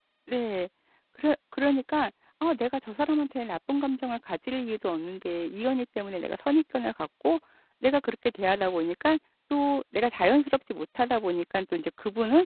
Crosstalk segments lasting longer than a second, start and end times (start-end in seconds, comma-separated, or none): none